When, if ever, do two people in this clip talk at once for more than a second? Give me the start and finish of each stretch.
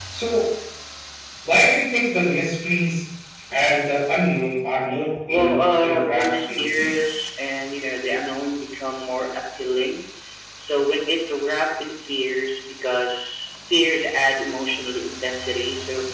5.3-7.0

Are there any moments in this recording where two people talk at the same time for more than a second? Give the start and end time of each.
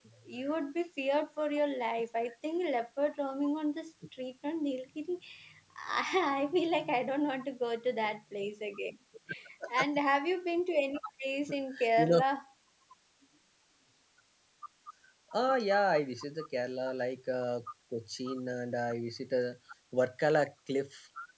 none

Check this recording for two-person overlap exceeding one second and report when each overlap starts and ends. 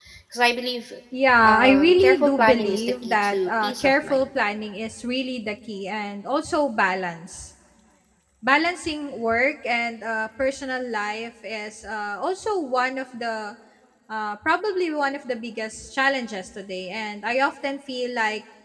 1.4-4.3

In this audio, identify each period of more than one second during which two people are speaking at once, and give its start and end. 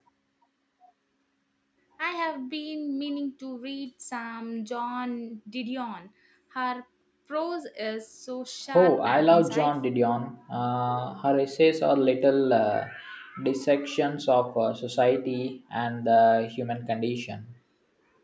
8.7-10.0

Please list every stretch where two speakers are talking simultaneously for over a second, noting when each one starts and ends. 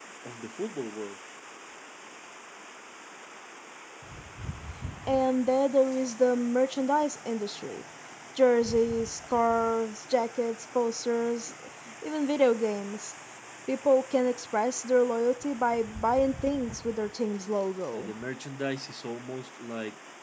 none

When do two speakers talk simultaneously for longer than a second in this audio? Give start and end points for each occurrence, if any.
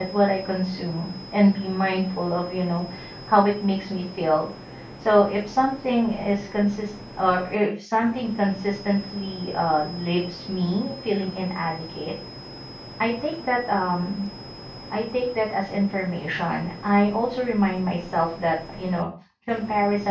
none

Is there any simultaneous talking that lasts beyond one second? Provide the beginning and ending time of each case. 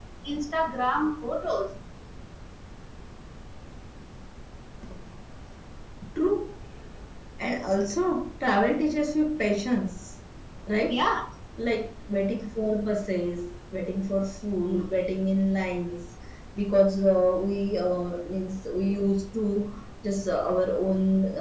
none

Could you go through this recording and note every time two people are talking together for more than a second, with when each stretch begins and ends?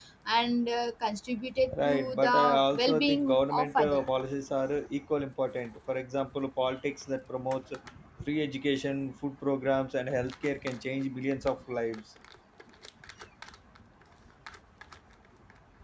1.7-4.1

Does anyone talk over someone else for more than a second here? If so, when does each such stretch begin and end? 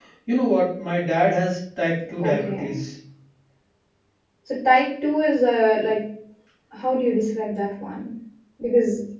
none

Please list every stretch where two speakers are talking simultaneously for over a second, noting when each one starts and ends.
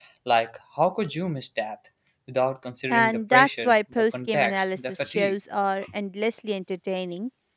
2.9-5.4

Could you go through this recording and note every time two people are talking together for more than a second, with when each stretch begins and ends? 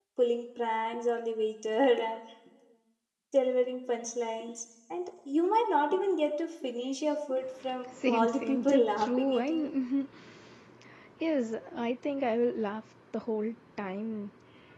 8.0-9.5

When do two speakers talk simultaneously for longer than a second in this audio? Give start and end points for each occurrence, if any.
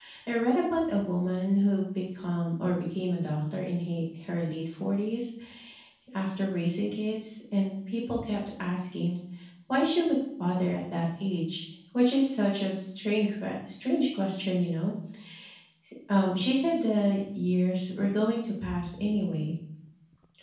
none

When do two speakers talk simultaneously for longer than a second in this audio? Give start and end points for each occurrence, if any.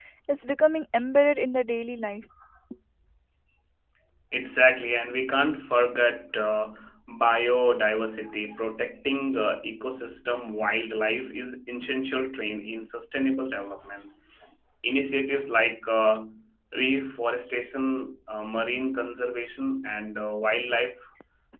none

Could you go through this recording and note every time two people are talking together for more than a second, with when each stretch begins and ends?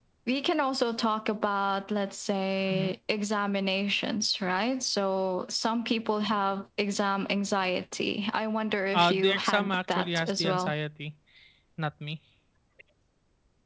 8.9-10.7

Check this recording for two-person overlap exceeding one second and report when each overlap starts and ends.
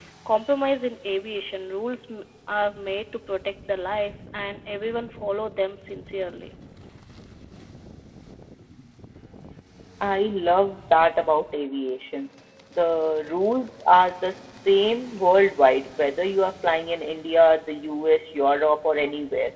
none

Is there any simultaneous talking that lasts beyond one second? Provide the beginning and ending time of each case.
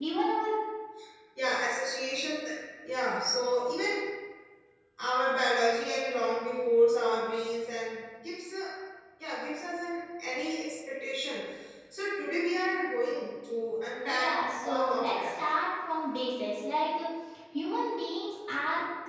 14.0-15.3

